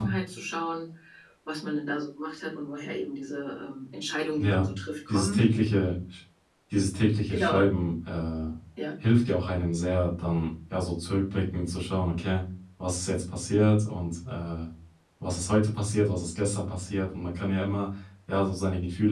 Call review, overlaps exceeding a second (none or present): none